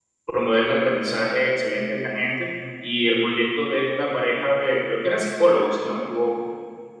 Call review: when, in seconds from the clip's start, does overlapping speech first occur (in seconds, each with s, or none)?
none